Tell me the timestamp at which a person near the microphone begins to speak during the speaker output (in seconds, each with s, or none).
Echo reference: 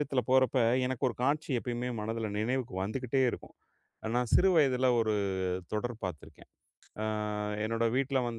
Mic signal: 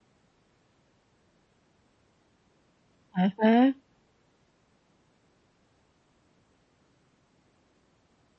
3.2 s